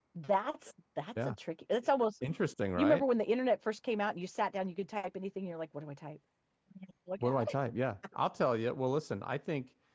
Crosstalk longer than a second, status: none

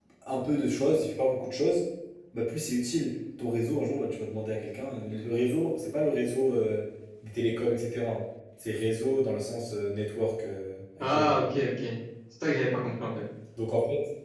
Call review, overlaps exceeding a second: none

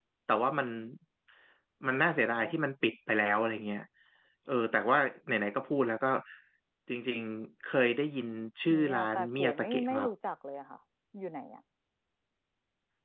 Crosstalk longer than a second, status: present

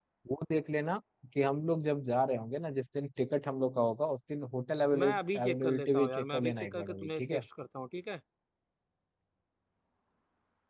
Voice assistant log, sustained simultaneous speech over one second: present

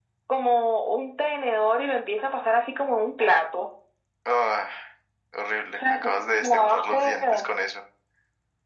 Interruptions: present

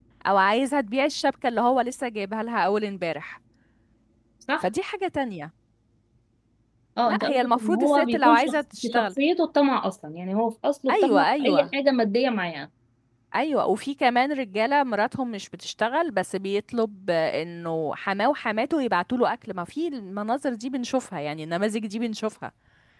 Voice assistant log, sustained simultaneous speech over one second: present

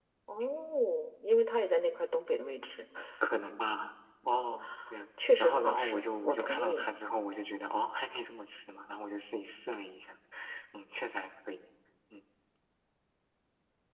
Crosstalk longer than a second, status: present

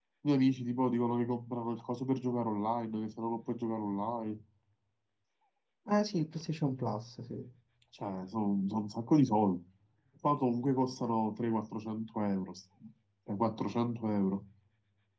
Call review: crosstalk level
none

